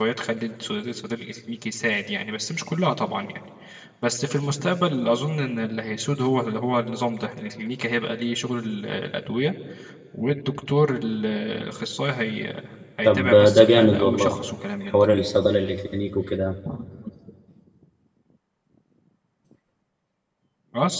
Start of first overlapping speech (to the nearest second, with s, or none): 13 s